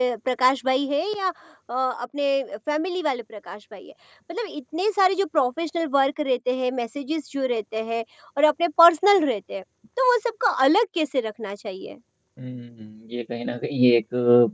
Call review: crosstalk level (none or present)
none